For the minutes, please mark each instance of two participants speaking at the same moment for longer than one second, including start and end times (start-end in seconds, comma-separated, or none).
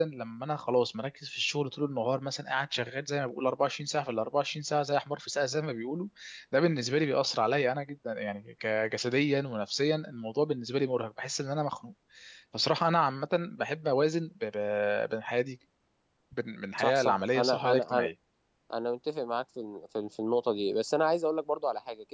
16.8-18.1